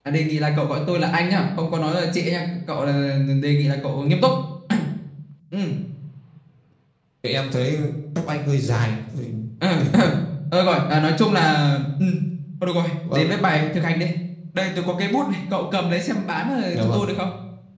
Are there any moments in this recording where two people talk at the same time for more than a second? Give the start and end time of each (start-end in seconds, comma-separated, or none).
none